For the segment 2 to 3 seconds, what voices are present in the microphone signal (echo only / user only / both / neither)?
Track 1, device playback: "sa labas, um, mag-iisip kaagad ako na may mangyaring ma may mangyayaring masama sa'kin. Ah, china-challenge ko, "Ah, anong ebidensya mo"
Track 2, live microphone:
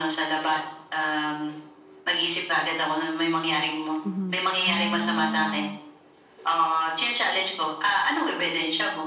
echo only